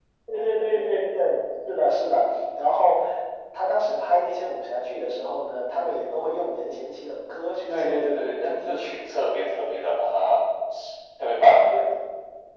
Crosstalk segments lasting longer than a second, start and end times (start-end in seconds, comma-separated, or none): 7.7-9.2